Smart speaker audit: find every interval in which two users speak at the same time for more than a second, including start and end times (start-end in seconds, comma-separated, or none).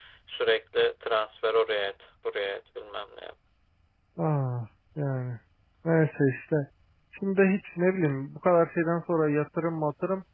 none